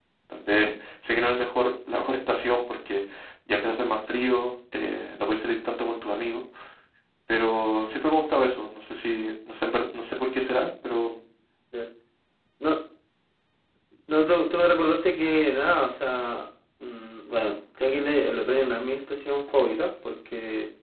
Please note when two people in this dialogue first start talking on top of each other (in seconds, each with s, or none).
none